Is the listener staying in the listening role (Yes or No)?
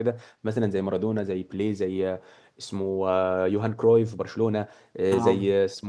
Yes